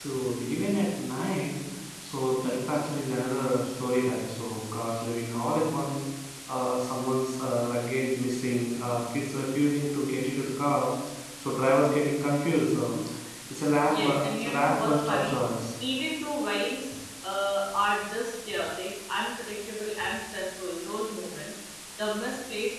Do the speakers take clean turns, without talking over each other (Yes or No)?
No